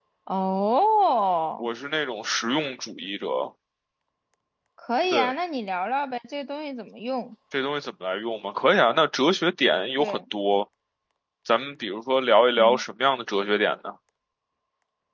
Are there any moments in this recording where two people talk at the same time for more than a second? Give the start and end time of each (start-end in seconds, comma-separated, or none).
none